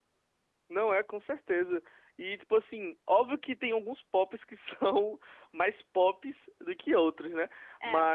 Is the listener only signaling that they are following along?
Yes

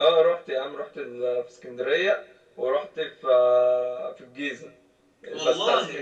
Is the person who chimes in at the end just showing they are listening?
Yes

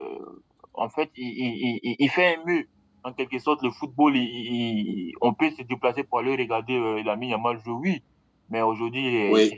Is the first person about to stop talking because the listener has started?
No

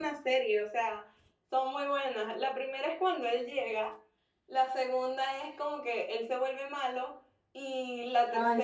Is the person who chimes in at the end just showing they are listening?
Yes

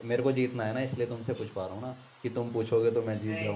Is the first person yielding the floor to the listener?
Yes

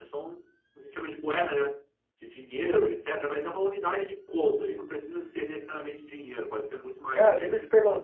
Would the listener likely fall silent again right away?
No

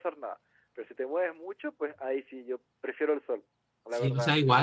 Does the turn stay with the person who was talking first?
No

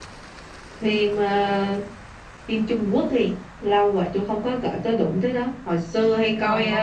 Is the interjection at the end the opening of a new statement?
No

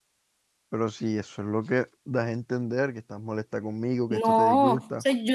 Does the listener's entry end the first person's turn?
Yes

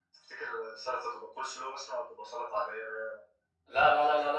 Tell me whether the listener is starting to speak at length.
Yes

